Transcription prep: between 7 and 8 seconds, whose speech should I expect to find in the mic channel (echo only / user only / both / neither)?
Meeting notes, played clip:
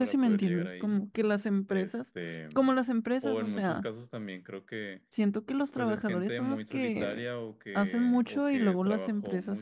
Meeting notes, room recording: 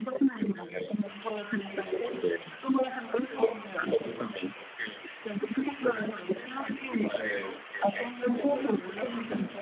both